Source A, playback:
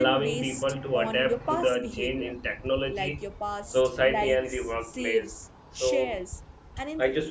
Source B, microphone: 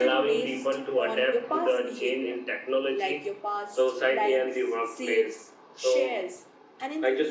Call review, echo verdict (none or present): present